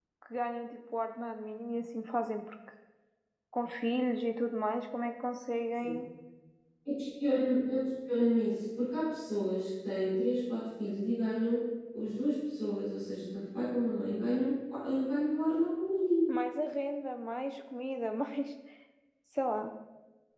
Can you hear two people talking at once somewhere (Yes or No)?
No